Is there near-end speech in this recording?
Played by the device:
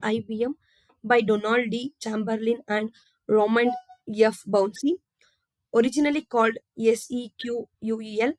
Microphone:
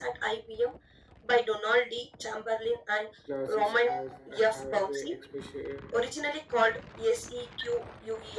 Yes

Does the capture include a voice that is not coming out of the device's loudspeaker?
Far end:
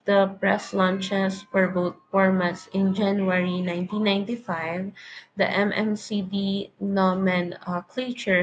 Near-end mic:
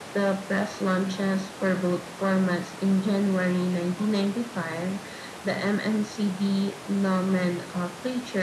No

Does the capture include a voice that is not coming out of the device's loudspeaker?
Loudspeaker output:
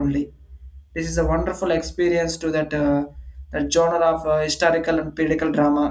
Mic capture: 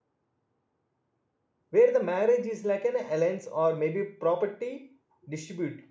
Yes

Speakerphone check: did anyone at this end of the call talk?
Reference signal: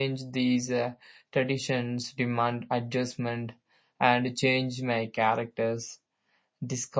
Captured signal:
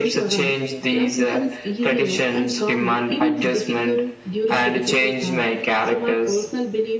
Yes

